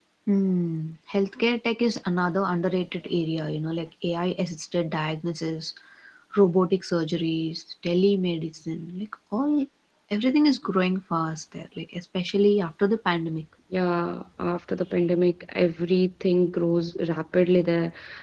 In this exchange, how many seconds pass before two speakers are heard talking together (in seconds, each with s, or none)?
none